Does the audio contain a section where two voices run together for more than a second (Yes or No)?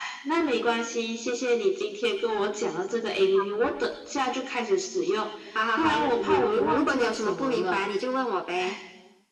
Yes